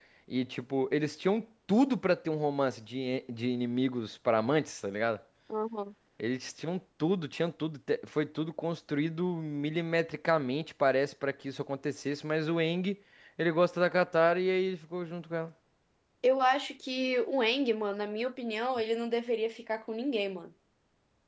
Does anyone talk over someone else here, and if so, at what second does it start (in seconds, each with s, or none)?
none